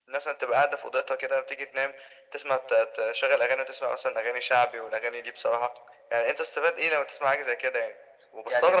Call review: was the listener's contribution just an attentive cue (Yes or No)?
No